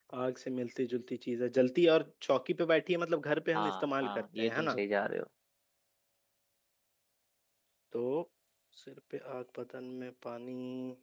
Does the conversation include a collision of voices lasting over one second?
Yes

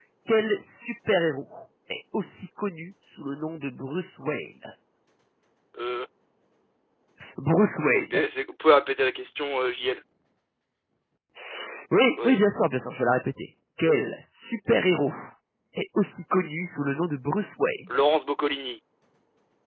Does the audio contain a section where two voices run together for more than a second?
No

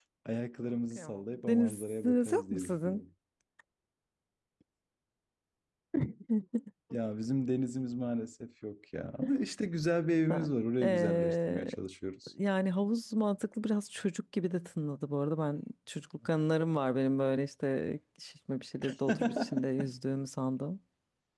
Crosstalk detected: Yes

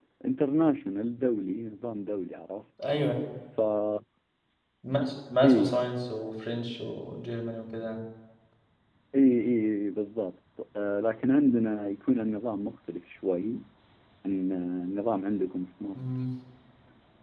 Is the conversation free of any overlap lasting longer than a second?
Yes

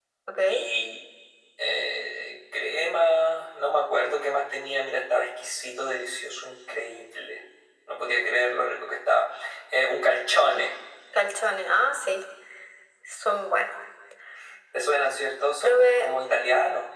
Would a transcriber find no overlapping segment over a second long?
Yes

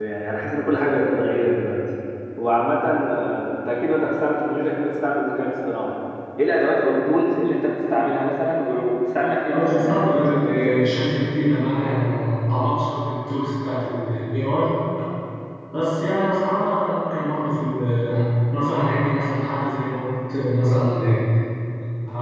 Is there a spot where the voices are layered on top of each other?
Yes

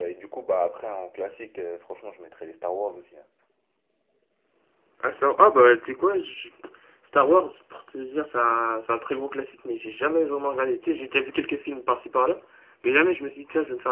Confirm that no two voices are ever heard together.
Yes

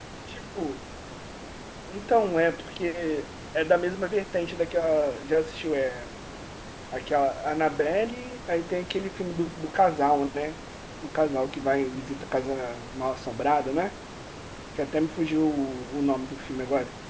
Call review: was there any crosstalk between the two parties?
No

